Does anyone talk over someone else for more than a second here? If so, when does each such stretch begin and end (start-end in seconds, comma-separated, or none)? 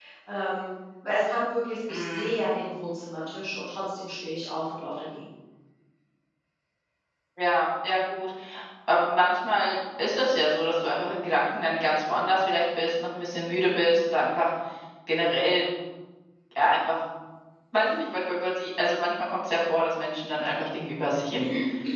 none